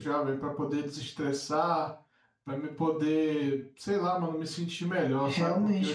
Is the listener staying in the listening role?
No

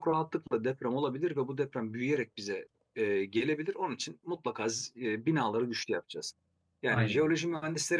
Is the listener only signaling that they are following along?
Yes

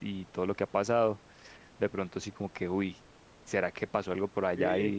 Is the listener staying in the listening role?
No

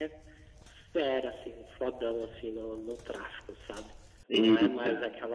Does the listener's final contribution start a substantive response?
No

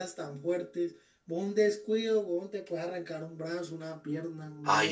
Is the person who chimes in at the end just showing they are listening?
No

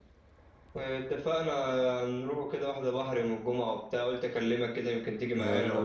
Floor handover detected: Yes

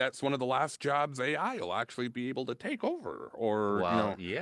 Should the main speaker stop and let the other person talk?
Yes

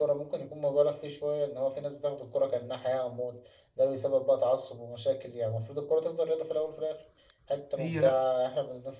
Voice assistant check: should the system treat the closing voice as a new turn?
No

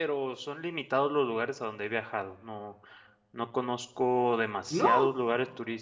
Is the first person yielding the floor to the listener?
No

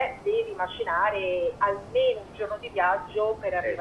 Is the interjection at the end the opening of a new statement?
No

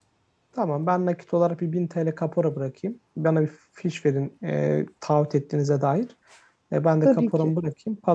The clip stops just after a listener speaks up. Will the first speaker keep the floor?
Yes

